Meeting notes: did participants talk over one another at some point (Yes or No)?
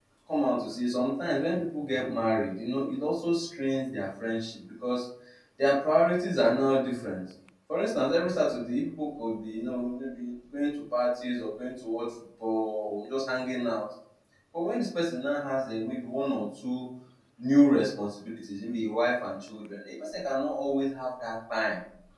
No